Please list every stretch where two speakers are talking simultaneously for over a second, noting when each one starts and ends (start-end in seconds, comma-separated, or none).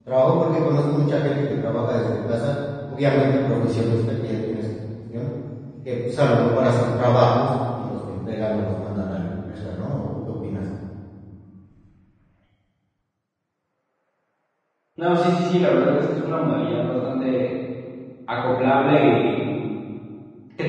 none